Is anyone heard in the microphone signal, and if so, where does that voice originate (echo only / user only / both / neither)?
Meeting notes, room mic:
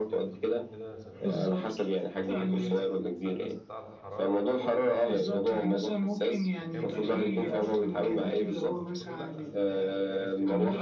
both